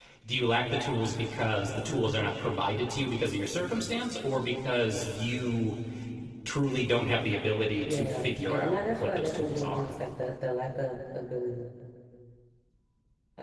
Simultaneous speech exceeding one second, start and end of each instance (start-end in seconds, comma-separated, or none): 7.8-9.9